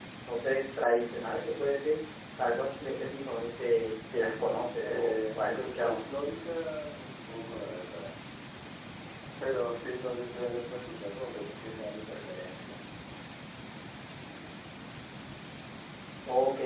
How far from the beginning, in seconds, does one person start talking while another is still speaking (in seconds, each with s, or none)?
4.8 s